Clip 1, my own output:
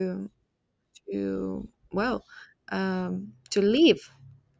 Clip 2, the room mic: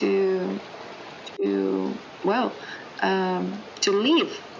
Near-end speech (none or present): none